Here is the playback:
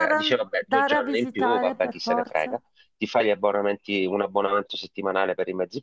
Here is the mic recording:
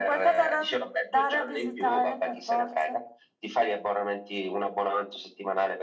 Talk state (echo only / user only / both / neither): echo only